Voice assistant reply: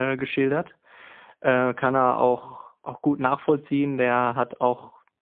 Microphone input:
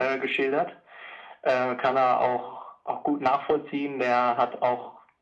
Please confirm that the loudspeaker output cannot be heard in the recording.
No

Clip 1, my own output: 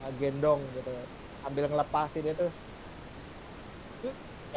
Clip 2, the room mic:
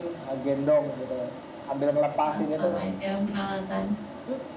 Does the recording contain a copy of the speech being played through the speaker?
Yes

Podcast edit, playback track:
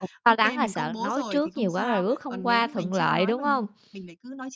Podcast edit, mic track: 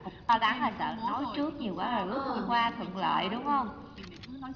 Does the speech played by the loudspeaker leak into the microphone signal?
Yes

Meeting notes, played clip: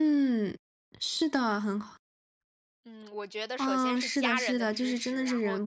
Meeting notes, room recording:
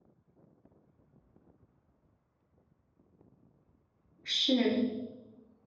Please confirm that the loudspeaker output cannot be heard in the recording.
Yes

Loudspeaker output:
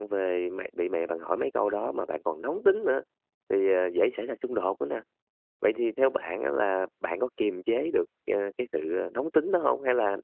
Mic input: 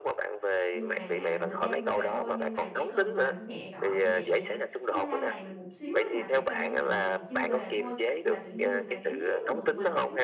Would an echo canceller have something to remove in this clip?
Yes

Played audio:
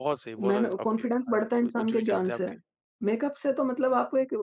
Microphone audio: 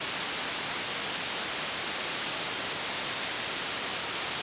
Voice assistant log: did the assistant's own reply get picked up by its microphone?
No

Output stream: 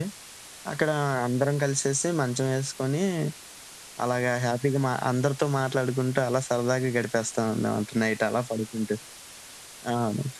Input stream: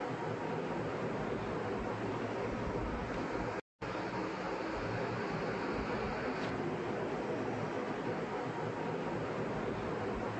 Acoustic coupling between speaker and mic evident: No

